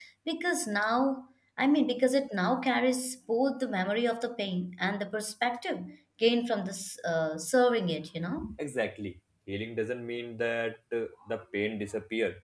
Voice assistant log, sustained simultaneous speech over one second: none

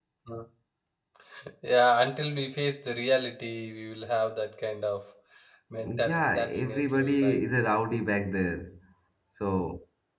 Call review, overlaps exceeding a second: present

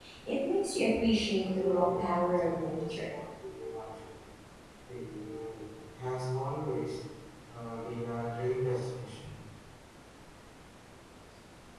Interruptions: present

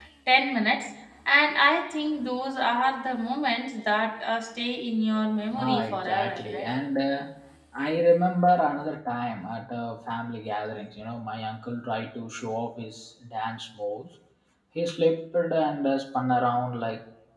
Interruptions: present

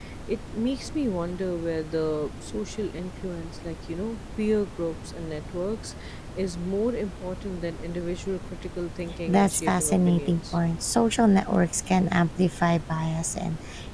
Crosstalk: present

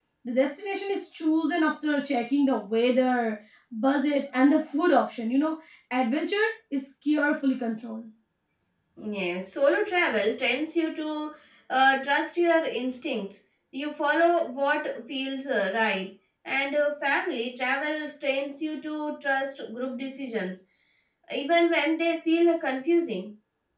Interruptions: none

